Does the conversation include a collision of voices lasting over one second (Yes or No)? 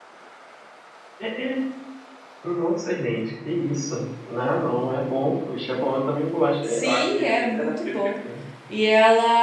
Yes